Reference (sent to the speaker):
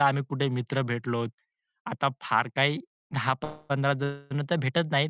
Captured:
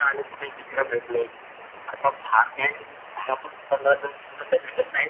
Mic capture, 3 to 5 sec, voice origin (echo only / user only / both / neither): echo only